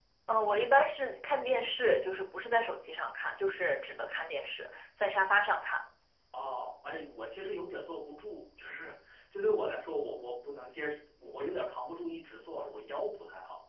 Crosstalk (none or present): none